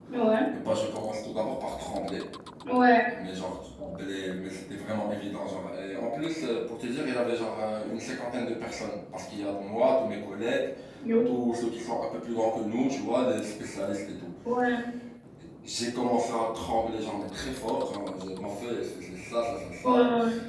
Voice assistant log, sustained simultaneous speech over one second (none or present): none